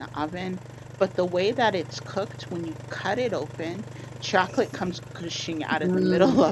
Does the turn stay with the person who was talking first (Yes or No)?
No